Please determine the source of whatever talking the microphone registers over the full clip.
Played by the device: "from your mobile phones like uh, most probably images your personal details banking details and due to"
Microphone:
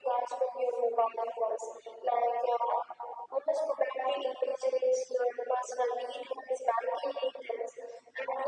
echo only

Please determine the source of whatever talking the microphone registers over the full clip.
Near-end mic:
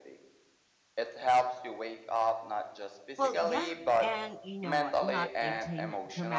both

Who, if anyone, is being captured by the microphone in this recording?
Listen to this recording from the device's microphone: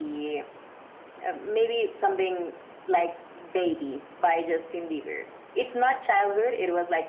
echo only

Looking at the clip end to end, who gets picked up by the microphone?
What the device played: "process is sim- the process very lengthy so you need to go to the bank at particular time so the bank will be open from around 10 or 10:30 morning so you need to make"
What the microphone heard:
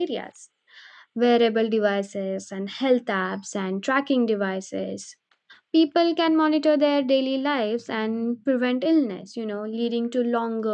user only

